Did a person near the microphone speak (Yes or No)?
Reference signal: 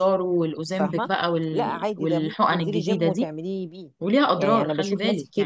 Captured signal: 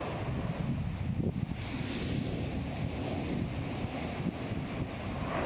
No